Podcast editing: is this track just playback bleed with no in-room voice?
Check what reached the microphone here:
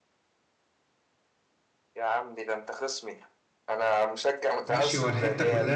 No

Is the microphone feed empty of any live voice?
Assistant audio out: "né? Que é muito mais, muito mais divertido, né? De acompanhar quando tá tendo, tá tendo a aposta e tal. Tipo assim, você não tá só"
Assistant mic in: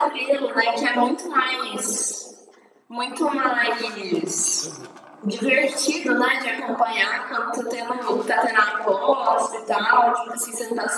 No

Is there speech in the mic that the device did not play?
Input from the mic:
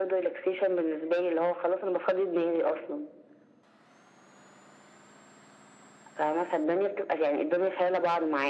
No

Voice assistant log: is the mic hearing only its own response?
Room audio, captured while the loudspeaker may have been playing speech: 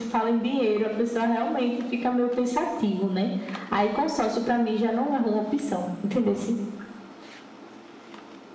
Yes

